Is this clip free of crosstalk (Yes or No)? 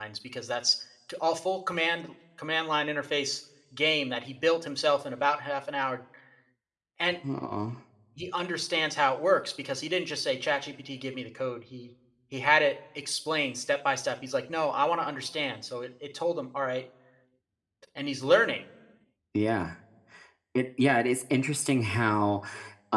Yes